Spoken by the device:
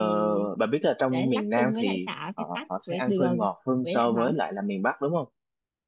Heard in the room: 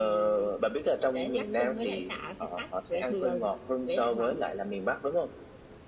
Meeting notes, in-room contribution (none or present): none